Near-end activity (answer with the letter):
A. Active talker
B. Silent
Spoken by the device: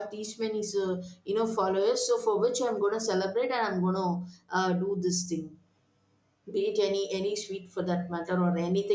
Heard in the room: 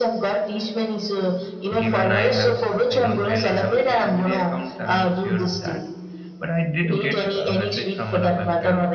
A